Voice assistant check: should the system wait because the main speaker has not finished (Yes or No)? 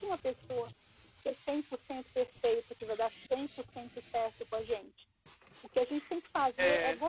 Yes